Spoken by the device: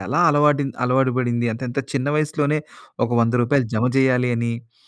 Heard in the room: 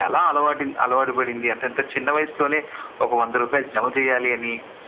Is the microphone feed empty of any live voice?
Yes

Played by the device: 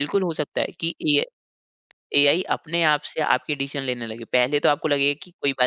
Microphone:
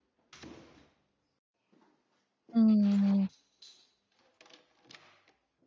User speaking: Yes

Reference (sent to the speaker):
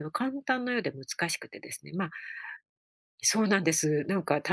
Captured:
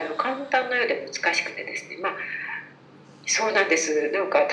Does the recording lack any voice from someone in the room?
Yes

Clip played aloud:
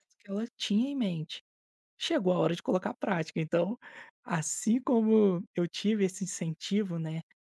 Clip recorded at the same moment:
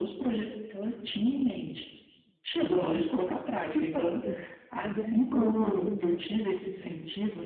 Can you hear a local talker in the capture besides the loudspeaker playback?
Yes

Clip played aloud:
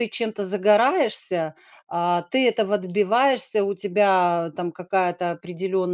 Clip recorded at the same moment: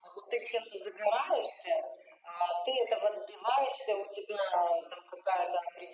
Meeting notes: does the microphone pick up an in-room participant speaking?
No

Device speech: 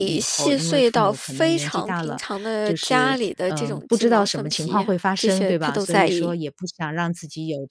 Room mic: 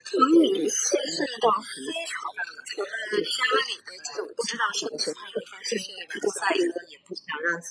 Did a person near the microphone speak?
No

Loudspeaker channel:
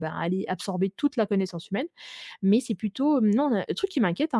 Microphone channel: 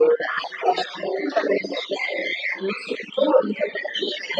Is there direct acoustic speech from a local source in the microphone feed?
No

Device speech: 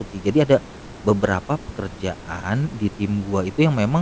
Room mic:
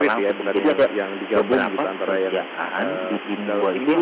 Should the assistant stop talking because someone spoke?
Yes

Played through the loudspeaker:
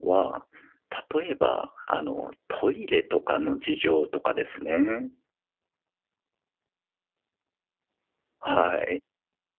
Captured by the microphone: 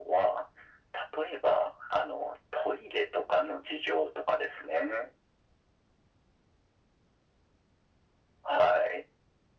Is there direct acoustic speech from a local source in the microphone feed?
No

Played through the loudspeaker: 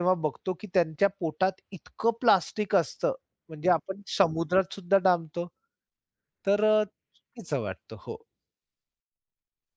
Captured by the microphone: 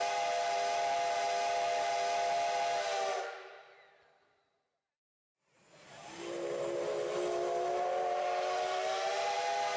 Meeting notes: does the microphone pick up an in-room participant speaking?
No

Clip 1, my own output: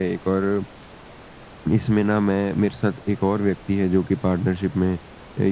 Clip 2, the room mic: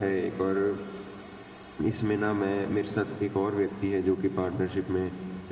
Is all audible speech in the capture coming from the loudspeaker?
Yes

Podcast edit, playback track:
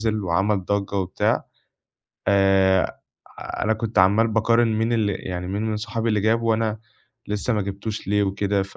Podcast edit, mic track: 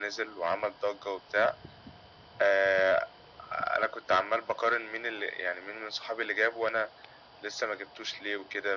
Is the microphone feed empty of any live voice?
Yes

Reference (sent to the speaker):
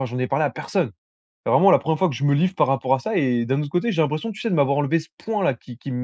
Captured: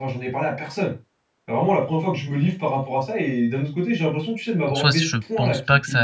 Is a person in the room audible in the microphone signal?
Yes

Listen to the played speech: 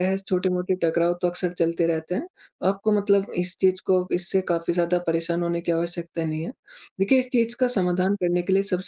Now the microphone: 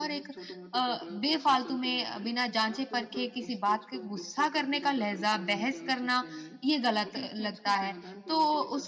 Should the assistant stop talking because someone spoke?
Yes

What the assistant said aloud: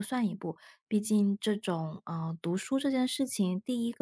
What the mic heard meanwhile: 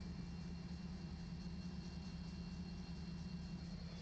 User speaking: No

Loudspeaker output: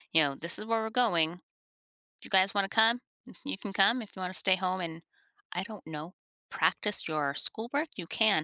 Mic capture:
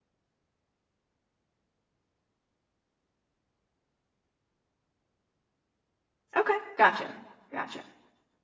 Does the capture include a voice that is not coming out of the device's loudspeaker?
Yes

